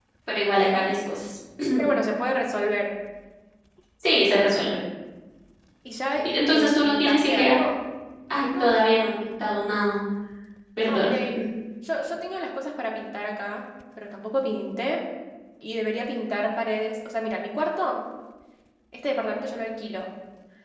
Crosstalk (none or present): present